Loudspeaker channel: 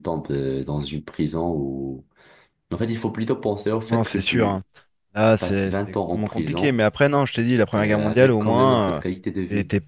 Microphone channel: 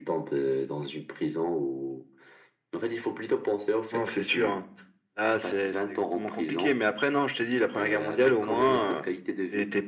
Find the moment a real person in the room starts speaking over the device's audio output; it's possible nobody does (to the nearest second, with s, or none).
none